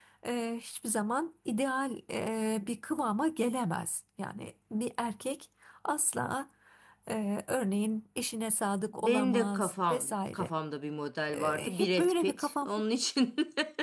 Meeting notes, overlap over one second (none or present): present